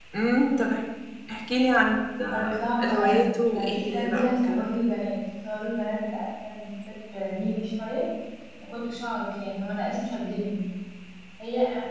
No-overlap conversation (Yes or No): No